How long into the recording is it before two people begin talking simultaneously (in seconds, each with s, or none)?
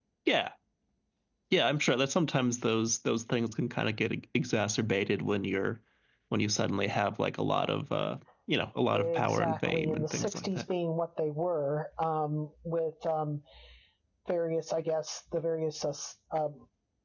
8.9 s